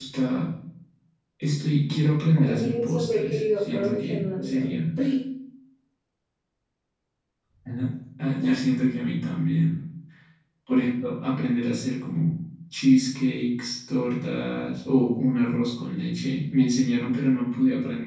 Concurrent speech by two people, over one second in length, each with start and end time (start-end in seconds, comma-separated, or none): 2.4-4.8